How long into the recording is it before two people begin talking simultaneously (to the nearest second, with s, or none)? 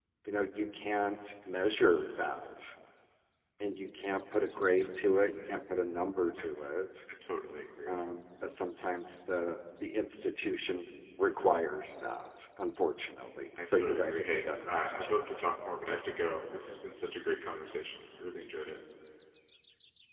14 s